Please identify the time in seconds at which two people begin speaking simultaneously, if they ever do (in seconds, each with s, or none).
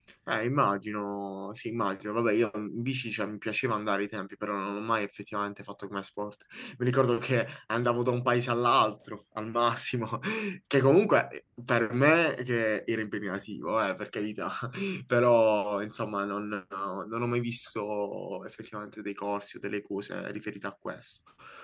none